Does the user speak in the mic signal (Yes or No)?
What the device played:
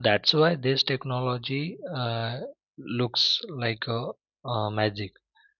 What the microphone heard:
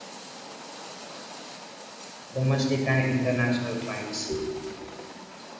Yes